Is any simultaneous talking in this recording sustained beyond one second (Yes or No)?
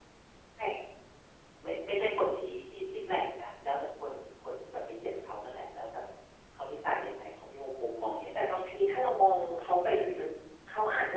No